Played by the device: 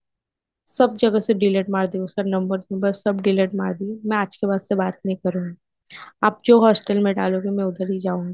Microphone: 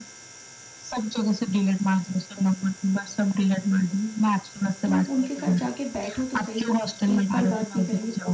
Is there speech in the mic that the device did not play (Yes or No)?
Yes